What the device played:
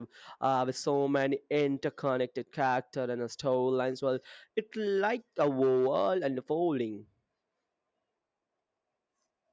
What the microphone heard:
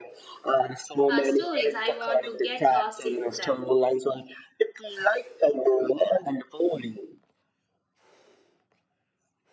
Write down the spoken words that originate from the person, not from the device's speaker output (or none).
uh, stories. I want to get lost in them.